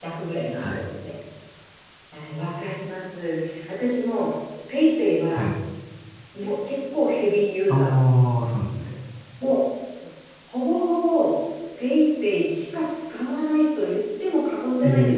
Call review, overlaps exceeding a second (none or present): none